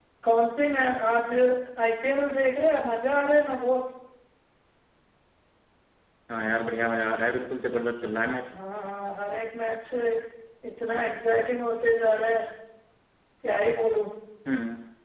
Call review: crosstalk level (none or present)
none